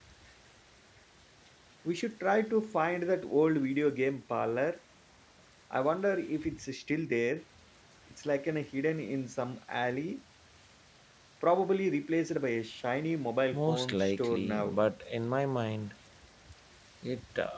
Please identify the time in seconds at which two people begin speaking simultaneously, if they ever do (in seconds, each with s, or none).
13.5 s